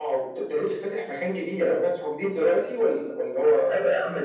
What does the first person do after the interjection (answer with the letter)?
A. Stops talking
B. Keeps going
A